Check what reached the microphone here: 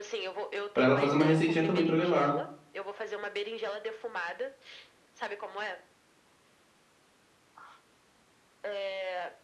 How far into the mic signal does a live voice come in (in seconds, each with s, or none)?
0.7 s